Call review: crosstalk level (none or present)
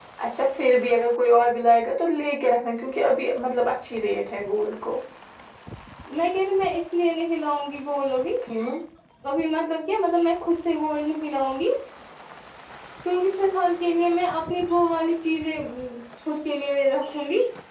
none